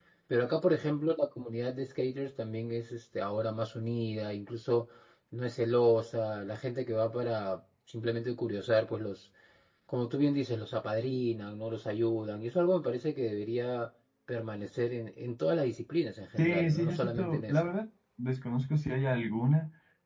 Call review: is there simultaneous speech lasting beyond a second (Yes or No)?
Yes